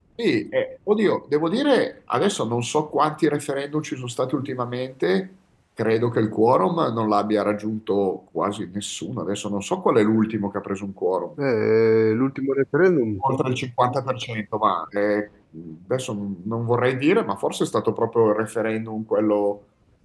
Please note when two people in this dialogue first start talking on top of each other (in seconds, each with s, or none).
none